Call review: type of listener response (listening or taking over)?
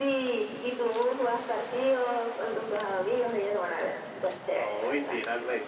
taking over